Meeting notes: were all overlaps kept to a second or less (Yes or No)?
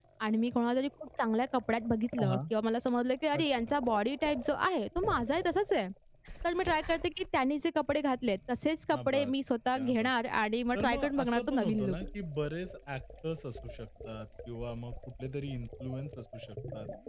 No